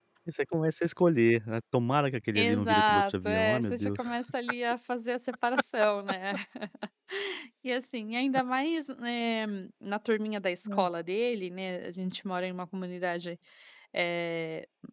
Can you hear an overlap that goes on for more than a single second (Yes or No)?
Yes